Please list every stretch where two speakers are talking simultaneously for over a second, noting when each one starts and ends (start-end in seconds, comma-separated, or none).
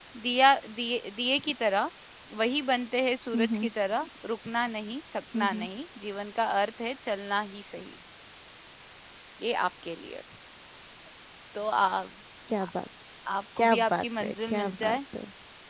13.6-15.0